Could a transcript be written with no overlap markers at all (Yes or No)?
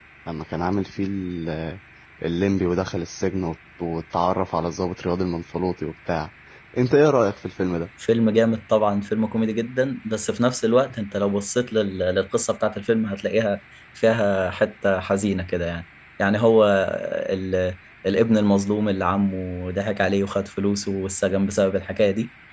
Yes